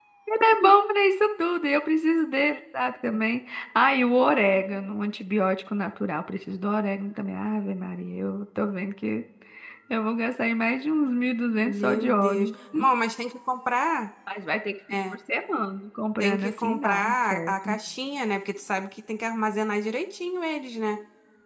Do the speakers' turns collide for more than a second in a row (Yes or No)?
Yes